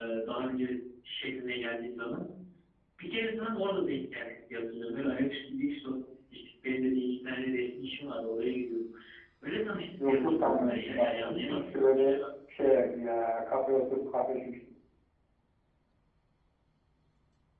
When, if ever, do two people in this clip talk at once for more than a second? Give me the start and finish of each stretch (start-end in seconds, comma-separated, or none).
10.0-12.2